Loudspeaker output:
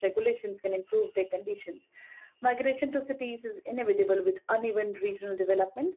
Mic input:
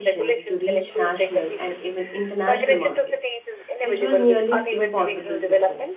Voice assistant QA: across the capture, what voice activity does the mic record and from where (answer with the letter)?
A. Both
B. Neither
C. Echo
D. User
A